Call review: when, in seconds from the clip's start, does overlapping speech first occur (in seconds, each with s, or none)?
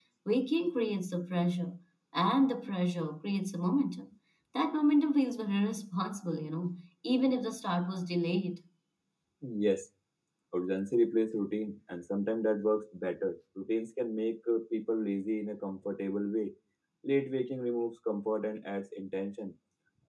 none